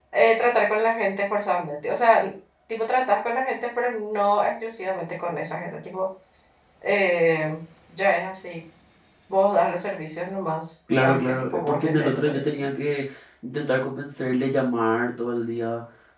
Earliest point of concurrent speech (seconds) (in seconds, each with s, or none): 10.9 s